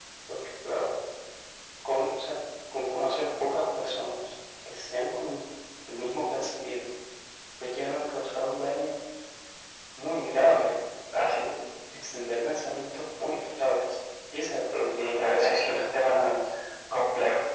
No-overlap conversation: No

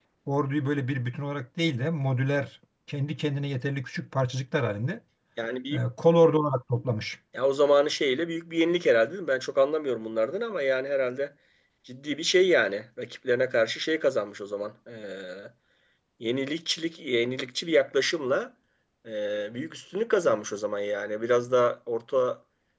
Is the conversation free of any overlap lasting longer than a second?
Yes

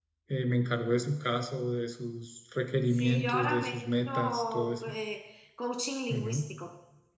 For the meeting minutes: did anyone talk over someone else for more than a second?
Yes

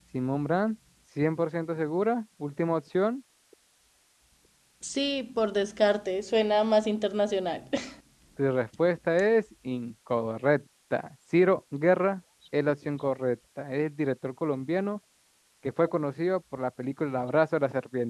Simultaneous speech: No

